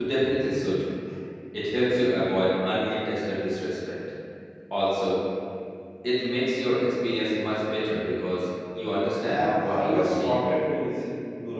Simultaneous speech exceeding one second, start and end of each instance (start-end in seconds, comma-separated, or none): 9.2-10.4